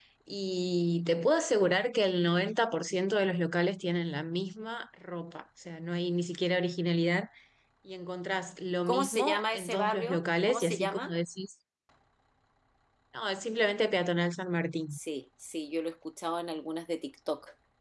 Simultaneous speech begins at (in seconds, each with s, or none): 8.9 s